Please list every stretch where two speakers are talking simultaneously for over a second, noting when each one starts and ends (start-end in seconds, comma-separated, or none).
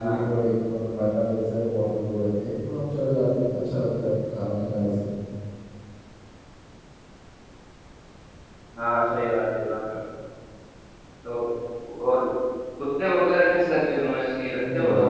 none